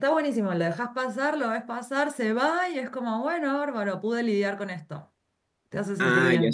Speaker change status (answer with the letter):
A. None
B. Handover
B